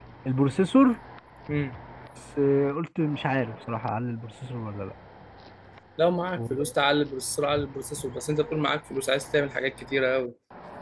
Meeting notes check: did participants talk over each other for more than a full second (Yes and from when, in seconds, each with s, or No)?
No